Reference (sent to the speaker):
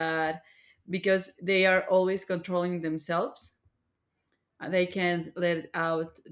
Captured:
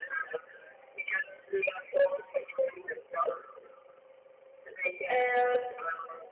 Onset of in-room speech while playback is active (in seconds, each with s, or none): 5.1 s